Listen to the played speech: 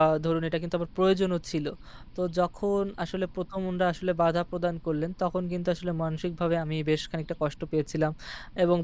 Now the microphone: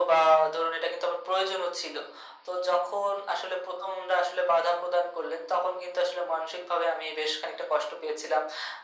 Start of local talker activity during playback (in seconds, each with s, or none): none